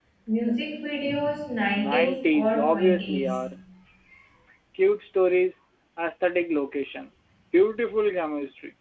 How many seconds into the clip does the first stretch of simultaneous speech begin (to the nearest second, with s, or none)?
2 s